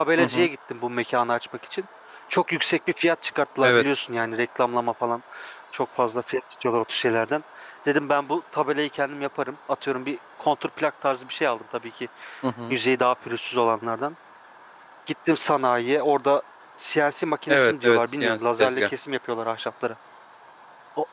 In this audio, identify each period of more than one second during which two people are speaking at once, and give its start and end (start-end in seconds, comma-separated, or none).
17.5-18.9